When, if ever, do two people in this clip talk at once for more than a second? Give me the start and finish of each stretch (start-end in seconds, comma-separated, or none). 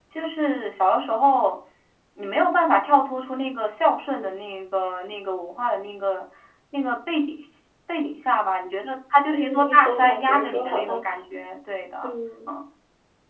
9.3-11.0